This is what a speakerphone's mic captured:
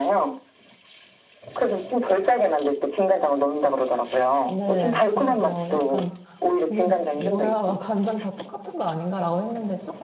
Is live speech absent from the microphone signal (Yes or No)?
No